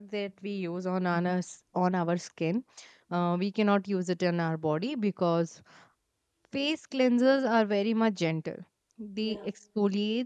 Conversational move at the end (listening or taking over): listening